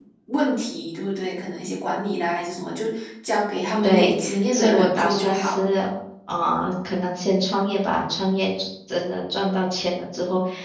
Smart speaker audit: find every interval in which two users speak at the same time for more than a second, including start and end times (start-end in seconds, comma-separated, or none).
3.8-5.6